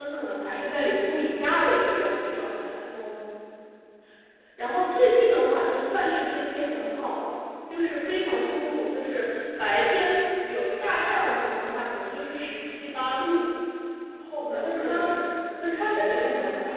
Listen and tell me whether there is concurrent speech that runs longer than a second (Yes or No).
No